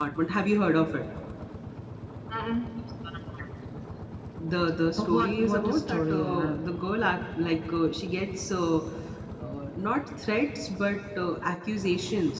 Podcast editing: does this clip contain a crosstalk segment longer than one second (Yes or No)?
Yes